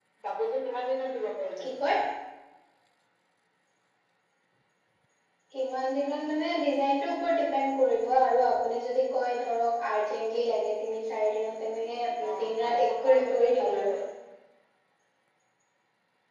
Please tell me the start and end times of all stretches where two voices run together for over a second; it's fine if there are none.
12.3-13.9

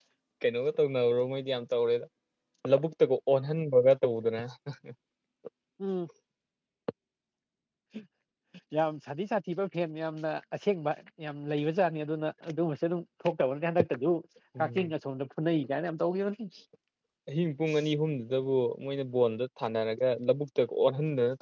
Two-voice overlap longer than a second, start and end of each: none

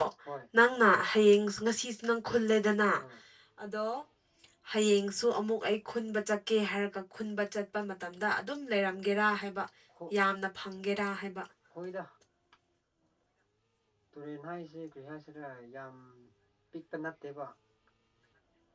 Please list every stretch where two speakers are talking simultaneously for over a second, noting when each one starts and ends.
none

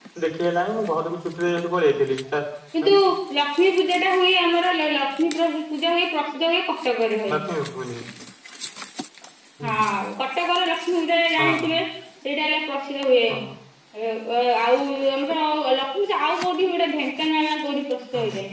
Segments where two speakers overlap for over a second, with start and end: none

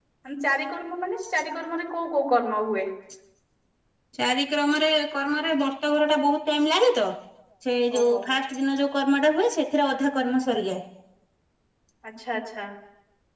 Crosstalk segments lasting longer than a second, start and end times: none

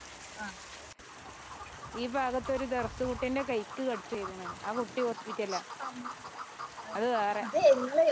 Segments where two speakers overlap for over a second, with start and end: none

